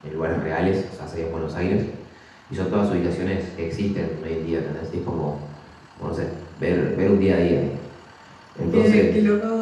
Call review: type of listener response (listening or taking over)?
taking over